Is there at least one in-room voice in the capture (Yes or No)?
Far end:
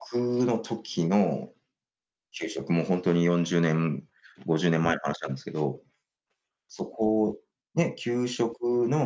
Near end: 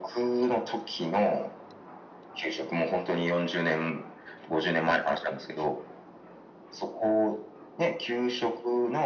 No